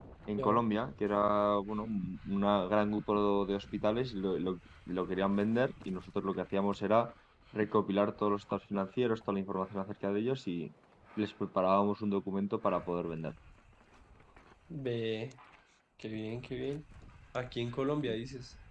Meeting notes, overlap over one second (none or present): none